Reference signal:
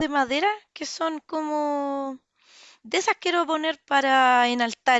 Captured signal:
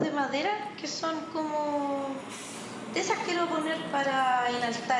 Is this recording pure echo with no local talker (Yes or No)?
Yes